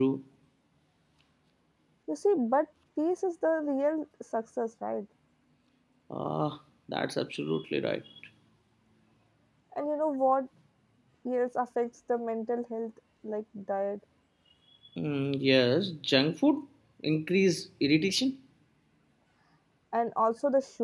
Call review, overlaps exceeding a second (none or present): none